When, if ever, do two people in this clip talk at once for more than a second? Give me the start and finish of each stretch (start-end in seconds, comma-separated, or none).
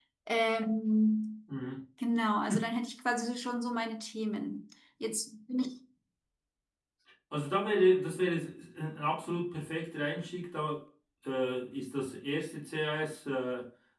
none